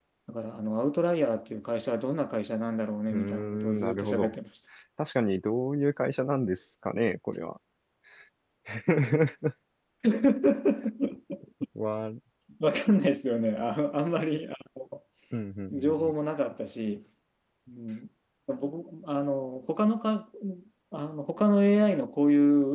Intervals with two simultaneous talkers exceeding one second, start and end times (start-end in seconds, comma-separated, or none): 3.1-4.3